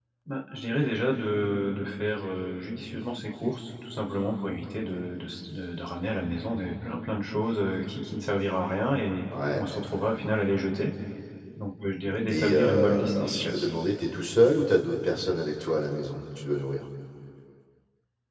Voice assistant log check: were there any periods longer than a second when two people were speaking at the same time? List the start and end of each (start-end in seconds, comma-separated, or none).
12.3-13.7